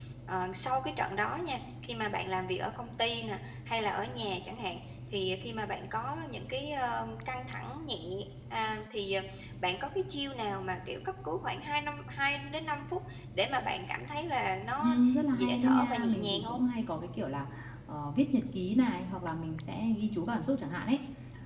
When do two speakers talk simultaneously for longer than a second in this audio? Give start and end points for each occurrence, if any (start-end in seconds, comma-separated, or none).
15.3-16.6